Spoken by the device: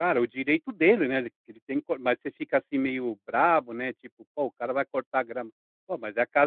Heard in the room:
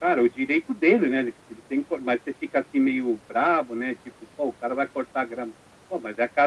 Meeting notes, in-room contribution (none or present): none